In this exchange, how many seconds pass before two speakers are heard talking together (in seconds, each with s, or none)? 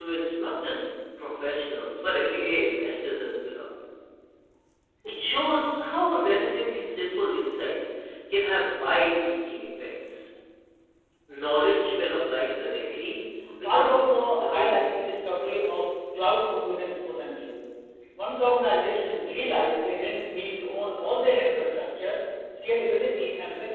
13.6 s